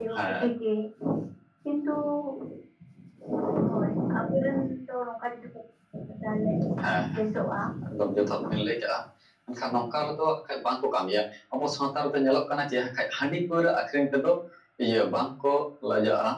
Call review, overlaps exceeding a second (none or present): none